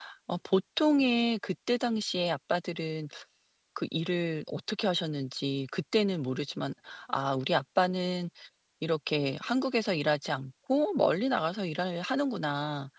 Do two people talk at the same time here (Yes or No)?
No